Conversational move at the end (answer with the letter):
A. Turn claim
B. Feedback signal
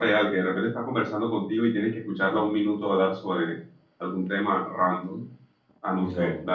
B